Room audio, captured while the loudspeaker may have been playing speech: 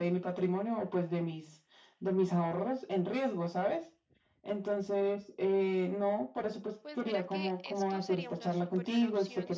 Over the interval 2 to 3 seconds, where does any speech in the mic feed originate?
echo only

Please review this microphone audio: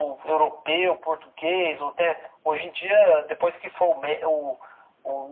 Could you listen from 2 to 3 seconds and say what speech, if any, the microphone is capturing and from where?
echo only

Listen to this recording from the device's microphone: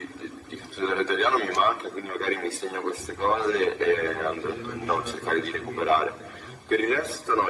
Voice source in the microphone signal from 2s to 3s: echo only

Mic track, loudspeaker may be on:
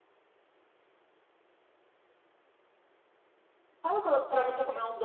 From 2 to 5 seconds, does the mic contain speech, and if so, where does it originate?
user only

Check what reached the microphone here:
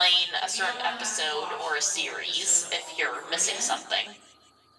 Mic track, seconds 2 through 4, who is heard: both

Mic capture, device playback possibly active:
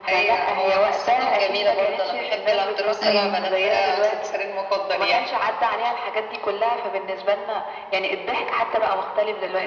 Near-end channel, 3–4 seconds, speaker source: both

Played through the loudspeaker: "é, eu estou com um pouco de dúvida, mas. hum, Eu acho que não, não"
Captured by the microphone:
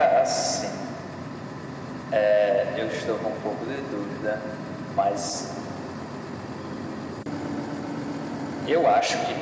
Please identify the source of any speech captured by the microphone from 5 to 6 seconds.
echo only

